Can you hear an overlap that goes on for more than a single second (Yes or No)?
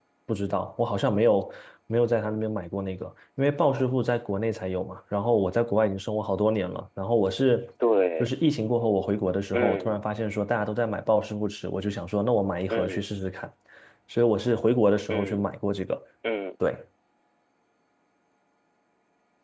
No